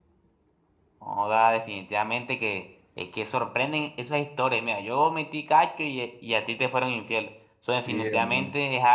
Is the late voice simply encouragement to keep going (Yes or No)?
Yes